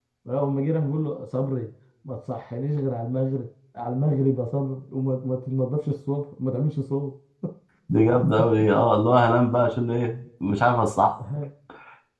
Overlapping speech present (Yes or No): No